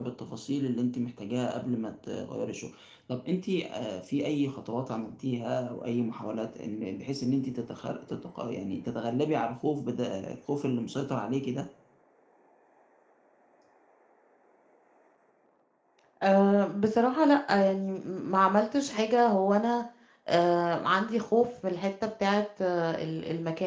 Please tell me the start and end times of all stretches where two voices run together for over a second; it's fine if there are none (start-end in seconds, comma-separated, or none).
none